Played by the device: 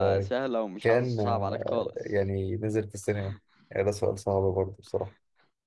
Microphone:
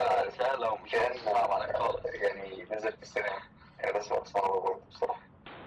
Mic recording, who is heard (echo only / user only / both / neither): echo only